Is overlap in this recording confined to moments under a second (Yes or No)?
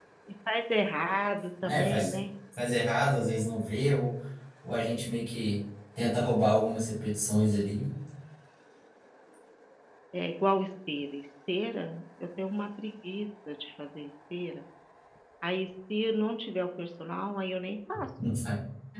Yes